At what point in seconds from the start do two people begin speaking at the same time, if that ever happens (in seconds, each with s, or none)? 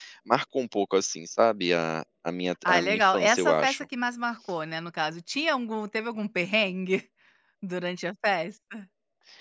2.6 s